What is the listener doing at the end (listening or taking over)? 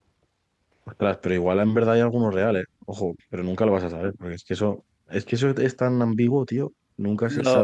taking over